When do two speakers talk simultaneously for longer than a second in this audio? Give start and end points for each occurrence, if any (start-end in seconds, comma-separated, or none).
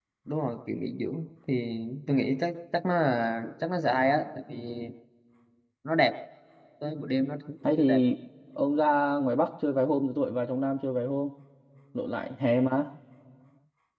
none